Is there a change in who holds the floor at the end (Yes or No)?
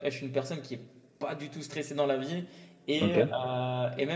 No